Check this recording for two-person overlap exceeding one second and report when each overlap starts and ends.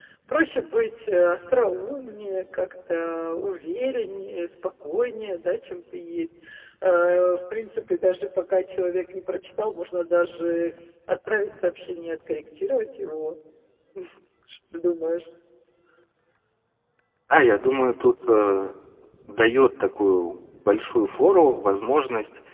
none

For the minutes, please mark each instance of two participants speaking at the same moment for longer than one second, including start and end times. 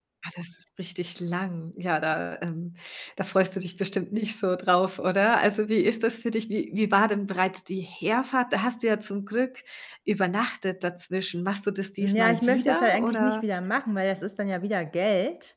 12.0-13.4

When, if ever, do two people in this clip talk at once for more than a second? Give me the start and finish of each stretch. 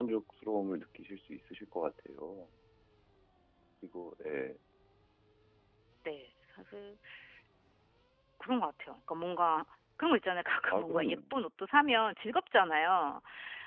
none

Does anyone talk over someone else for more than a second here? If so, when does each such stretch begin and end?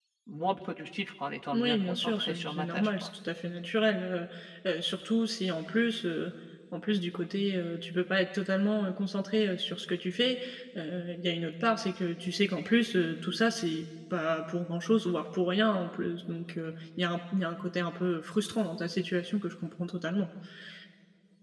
1.5-3.1

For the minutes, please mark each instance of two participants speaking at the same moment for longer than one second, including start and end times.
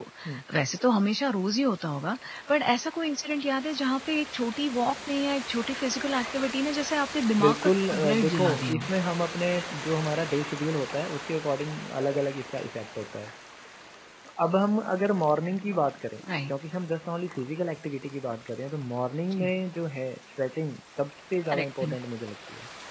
7.4-8.9

